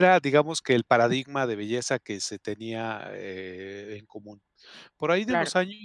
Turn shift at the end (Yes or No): No